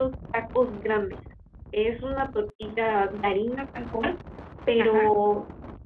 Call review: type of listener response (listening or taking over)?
listening